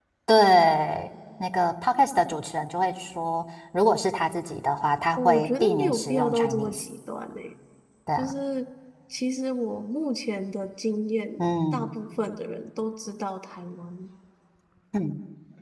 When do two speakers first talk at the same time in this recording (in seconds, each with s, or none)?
5.2 s